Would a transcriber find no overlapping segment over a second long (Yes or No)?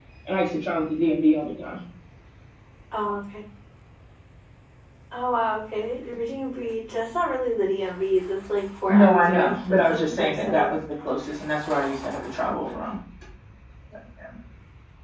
No